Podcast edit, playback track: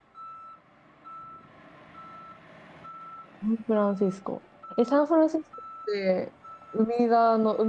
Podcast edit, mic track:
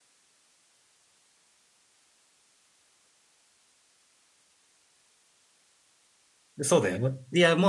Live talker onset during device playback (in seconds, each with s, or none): 6.6 s